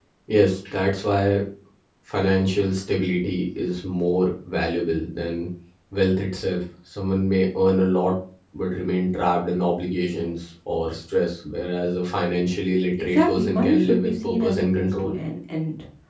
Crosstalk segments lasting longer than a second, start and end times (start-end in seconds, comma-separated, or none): 13.1-15.1